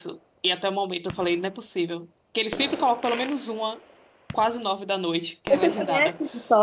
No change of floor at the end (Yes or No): No